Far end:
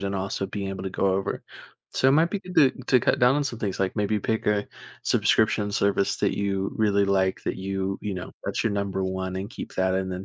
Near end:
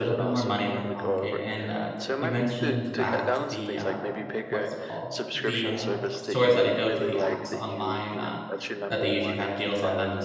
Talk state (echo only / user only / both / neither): both